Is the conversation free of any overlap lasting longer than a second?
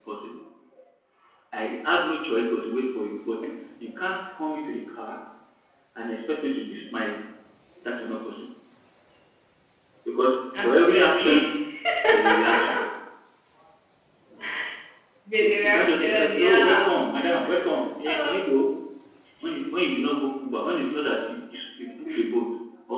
No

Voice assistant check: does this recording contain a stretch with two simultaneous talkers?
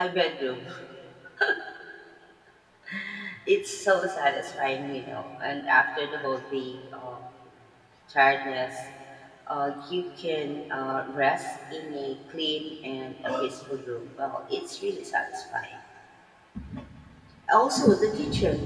No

